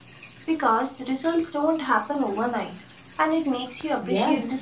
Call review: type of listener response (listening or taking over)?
taking over